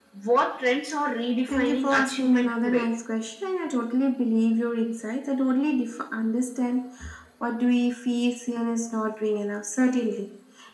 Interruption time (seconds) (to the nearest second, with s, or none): 1 s